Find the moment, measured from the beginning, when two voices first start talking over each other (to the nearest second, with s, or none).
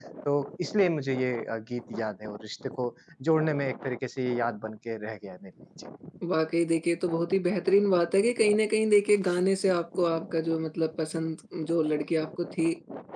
none